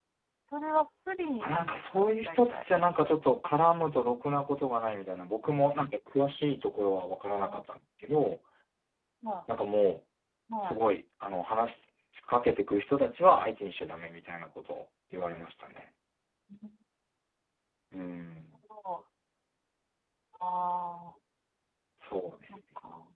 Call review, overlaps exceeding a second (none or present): present